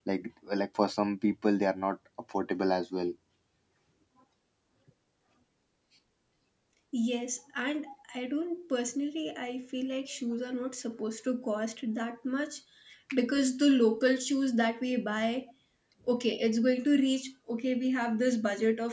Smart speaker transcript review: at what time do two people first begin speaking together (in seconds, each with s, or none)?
none